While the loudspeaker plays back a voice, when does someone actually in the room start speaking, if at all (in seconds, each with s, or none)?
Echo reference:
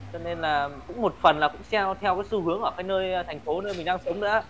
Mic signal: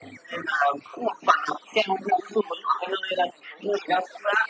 none